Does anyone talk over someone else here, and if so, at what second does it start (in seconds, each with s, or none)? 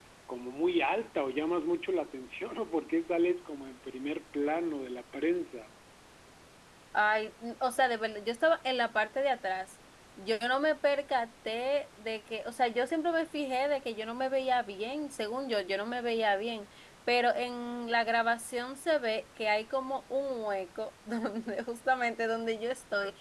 none